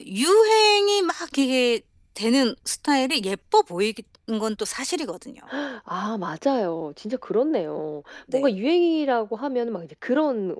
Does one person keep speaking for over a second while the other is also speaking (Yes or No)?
No